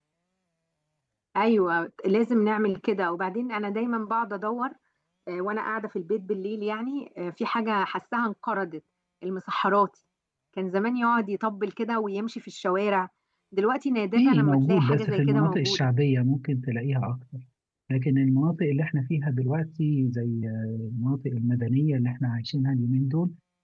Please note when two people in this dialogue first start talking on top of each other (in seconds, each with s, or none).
14.2 s